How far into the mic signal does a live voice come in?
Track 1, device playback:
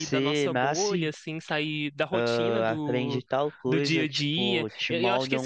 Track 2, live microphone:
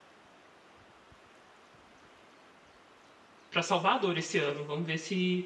3.5 s

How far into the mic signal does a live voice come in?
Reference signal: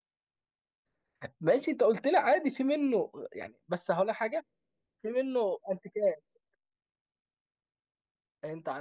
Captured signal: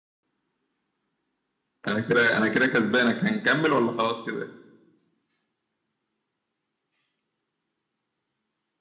1.9 s

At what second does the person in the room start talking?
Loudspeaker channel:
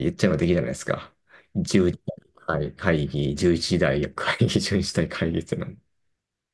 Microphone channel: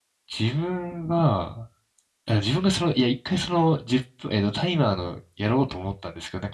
0.3 s

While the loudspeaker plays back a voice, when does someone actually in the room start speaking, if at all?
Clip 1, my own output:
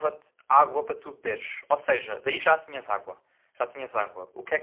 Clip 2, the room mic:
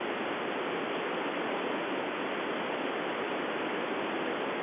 none

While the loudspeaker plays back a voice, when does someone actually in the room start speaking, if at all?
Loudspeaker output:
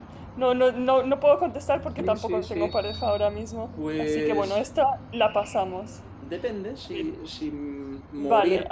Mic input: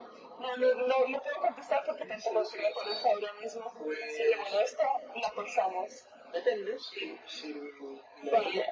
none

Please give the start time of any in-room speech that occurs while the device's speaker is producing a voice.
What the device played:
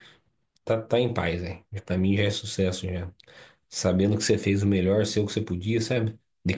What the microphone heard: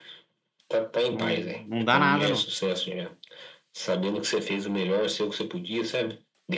1.1 s

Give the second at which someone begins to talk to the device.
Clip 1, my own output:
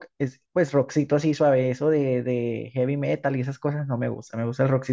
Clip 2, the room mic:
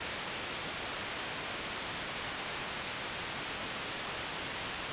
none

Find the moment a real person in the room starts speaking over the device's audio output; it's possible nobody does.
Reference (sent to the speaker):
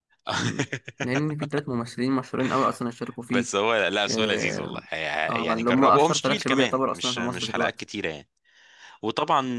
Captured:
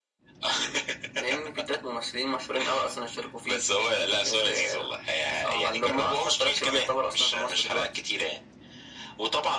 none

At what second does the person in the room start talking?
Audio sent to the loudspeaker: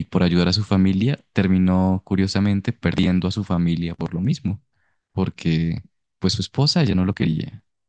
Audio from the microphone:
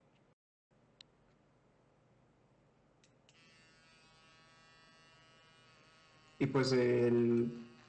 6.4 s

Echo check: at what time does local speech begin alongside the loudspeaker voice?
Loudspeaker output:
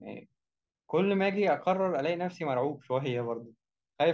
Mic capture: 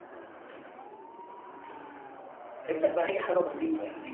2.7 s

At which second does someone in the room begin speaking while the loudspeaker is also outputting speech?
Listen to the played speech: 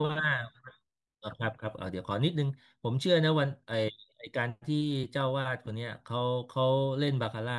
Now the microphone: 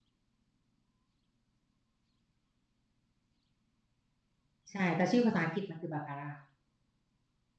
4.7 s

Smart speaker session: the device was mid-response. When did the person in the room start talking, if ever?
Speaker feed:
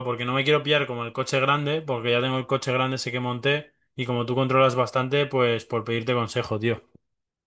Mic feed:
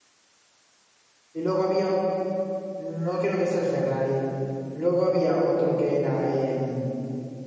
1.3 s

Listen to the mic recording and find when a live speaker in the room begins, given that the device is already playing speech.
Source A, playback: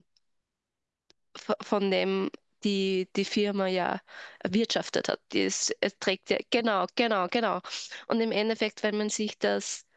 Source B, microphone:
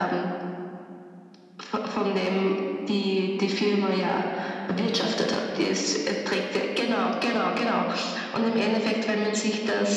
none

